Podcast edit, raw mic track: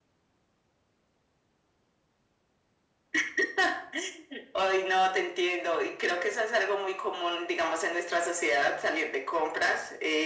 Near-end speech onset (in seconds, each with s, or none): none